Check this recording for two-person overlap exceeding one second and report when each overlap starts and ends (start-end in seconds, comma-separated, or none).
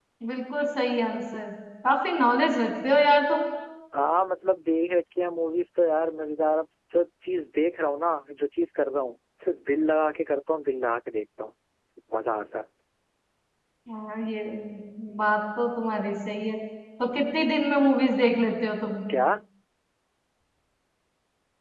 none